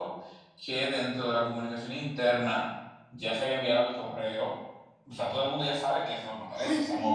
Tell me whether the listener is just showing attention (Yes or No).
No